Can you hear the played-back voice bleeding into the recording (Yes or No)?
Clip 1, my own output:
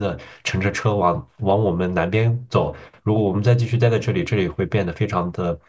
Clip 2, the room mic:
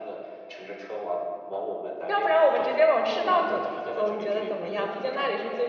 Yes